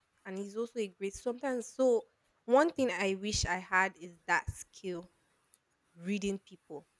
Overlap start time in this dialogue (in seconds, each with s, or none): none